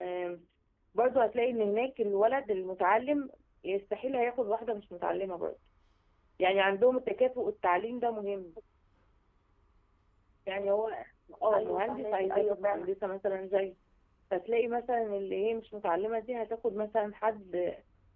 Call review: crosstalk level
present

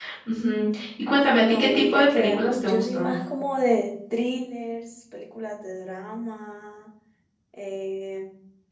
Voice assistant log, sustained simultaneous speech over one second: present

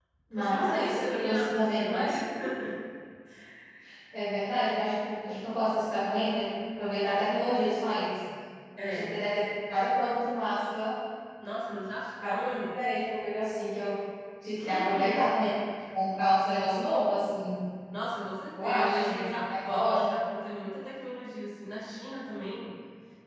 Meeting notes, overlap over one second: present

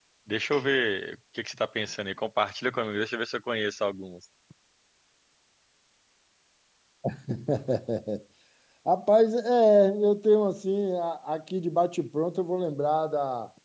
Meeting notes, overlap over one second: none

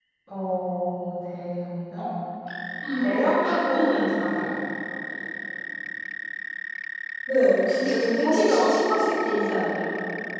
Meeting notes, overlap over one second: present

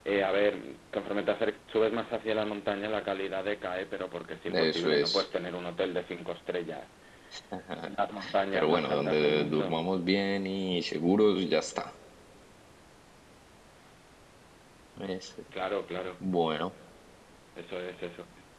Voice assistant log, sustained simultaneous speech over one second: present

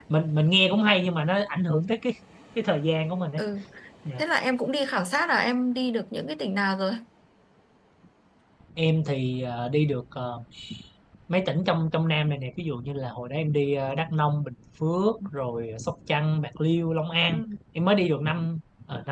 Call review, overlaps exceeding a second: none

